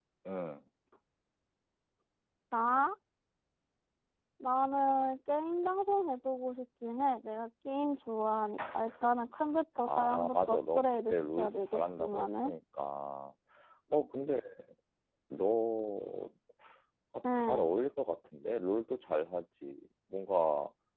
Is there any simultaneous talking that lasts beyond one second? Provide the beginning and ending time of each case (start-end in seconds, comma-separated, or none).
9.8-12.5